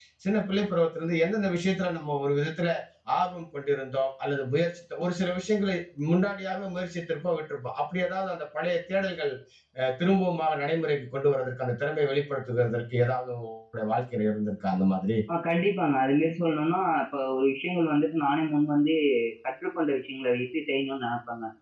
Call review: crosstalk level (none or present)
none